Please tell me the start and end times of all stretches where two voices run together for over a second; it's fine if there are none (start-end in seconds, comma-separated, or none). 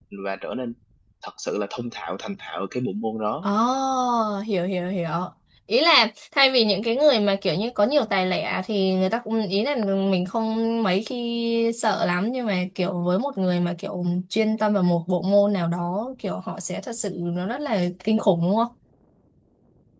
none